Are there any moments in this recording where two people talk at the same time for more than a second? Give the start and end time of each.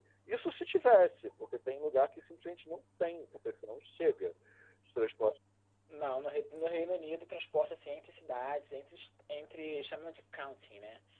none

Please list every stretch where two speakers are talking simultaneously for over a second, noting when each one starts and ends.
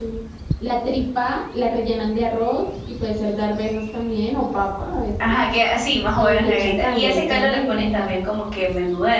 6.2-8.2

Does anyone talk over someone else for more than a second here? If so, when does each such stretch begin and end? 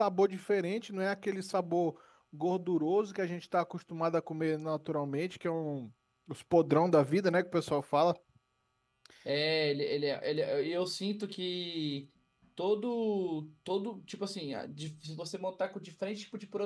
none

